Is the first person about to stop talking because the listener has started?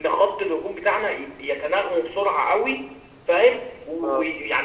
No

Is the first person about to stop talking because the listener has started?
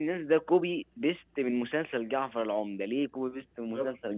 Yes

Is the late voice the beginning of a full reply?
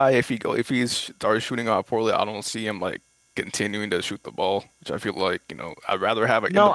Yes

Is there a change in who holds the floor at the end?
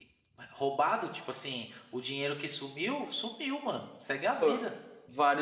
Yes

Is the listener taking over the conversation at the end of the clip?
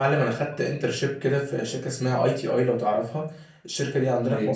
No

